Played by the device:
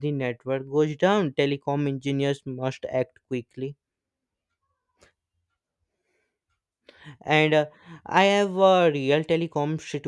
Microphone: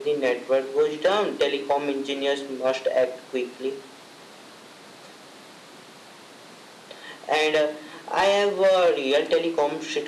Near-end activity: none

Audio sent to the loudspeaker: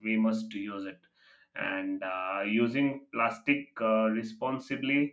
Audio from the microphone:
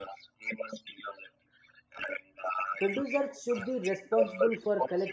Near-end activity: present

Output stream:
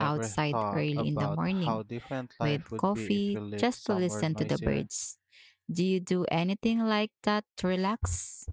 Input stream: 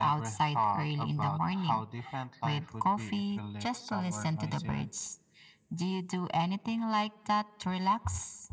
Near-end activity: none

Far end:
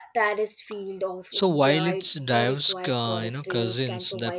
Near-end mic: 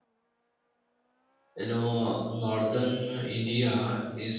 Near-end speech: present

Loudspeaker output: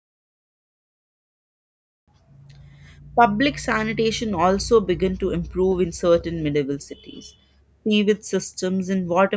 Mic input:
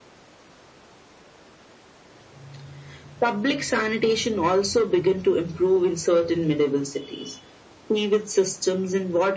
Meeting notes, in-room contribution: none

